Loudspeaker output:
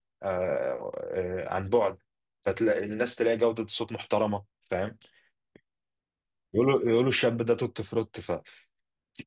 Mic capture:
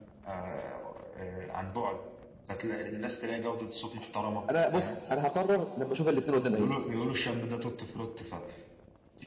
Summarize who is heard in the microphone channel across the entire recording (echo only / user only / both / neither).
both